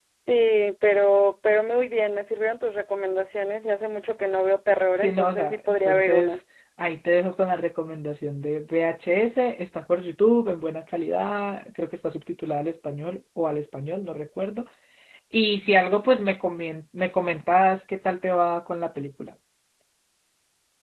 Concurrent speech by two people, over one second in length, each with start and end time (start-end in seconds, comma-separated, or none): 5.0-6.4